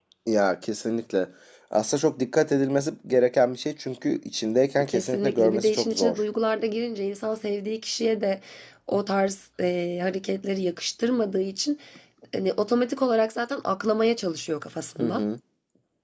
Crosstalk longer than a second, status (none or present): present